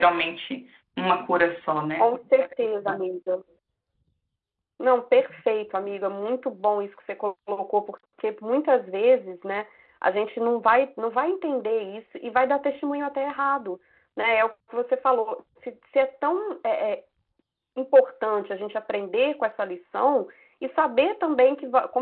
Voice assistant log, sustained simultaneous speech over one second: none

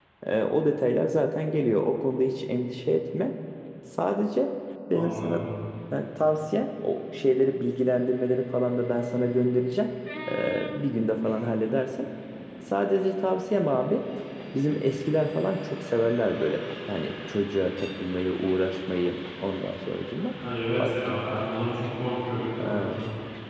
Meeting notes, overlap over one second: none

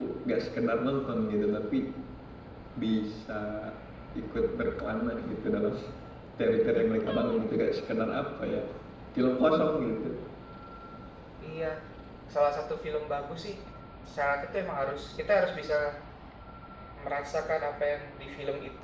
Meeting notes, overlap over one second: none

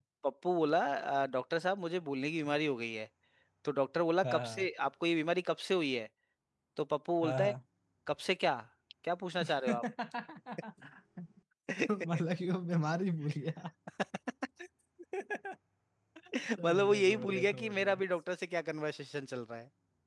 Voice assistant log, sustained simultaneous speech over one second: present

